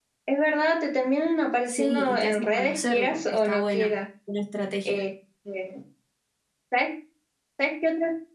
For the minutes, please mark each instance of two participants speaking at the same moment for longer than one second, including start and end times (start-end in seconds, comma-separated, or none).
1.7-4.0